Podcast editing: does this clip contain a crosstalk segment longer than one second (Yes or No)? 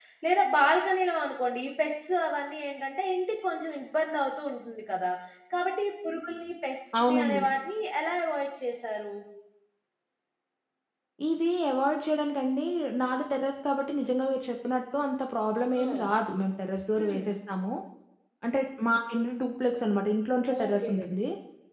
No